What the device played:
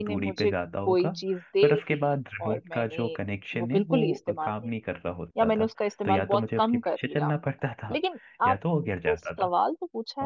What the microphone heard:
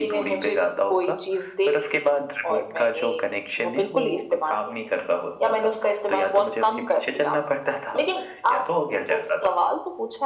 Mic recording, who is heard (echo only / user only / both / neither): echo only